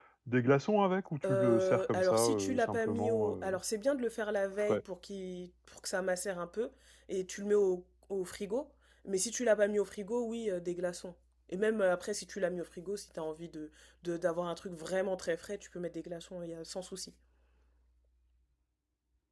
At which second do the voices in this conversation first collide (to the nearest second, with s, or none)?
1 s